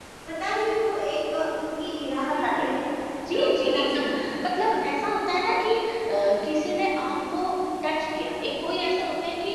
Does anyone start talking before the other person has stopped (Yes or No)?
Yes